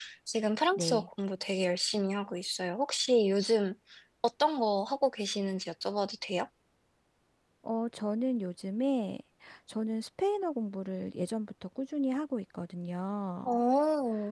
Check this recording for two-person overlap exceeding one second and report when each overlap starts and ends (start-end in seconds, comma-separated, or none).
none